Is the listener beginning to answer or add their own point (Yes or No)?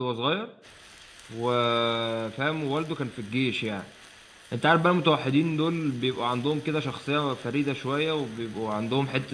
No